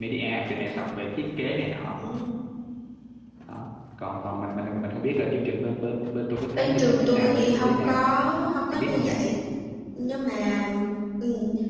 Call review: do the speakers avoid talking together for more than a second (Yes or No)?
No